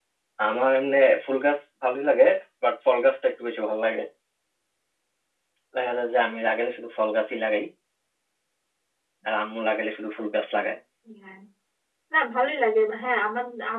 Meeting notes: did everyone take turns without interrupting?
Yes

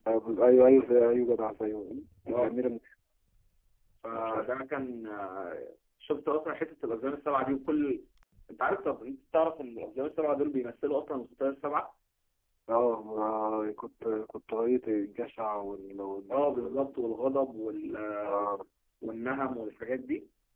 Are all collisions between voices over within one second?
Yes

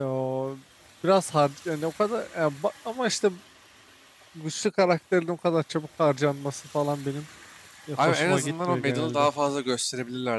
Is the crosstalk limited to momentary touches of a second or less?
No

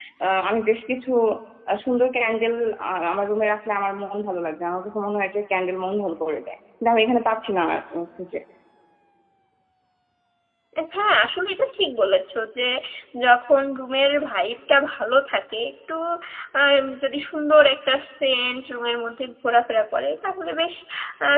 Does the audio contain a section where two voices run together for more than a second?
No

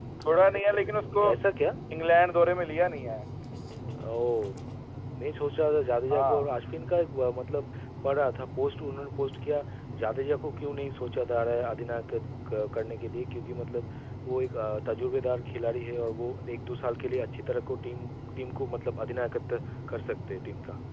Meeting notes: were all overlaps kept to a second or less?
Yes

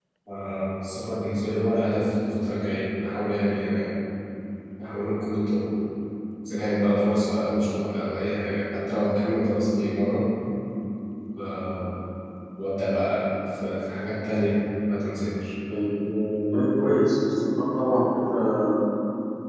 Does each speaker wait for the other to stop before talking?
Yes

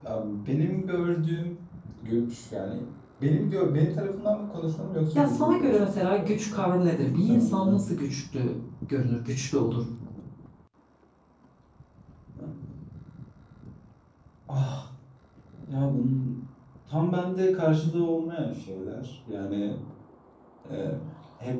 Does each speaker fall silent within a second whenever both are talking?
No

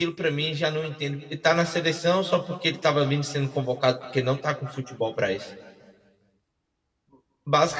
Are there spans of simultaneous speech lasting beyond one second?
No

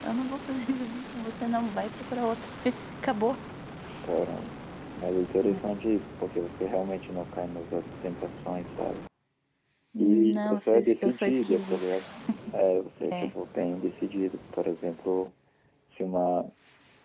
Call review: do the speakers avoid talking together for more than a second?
No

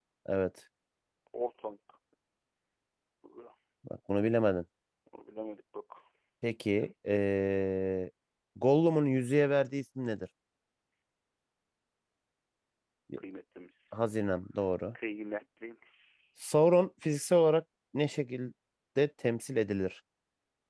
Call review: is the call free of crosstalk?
Yes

